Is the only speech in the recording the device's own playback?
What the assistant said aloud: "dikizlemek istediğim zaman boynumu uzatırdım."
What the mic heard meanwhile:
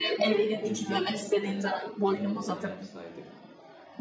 No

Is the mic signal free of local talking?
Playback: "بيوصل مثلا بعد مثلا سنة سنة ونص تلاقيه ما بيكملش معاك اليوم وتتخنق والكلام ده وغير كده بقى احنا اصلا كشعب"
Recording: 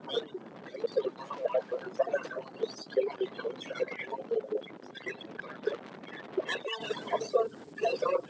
Yes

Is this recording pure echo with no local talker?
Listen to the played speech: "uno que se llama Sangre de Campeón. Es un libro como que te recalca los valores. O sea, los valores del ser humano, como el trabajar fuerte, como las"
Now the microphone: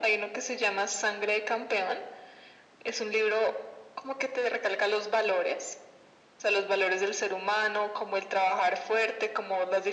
Yes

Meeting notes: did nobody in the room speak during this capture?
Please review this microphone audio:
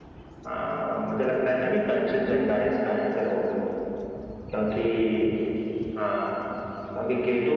Yes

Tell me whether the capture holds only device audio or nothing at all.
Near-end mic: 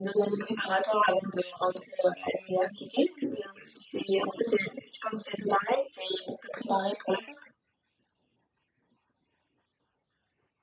Yes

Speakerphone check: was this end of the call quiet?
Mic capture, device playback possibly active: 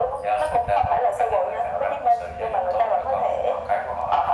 Yes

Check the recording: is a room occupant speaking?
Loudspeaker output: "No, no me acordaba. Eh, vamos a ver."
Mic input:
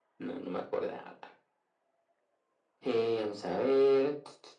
No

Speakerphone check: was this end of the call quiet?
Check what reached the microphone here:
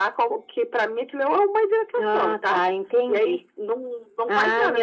Yes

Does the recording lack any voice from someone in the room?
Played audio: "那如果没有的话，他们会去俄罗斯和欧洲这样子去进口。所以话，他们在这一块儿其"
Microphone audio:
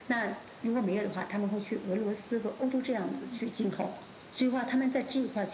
No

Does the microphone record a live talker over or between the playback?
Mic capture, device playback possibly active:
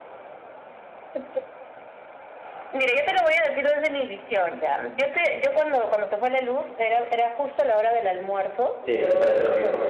Yes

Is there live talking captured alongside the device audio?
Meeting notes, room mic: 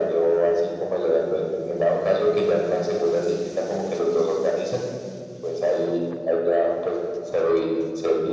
No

